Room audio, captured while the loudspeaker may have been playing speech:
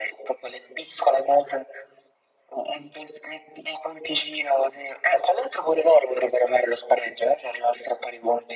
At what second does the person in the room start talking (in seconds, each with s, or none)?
none